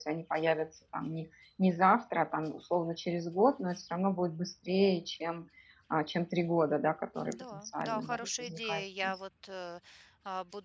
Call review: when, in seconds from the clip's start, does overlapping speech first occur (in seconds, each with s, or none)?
7.3 s